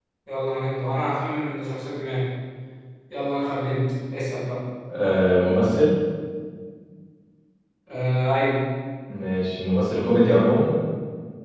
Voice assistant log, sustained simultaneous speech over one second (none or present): none